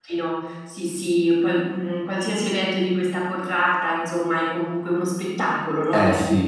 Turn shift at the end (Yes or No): Yes